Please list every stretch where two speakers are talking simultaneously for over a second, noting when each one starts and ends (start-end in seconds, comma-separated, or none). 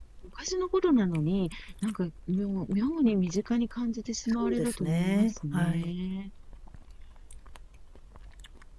4.3-5.9